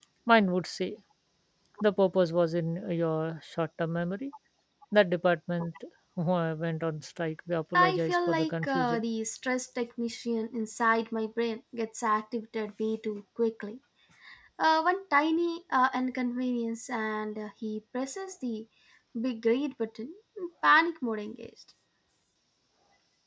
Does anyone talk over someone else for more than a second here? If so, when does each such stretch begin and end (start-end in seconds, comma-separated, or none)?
7.7-9.0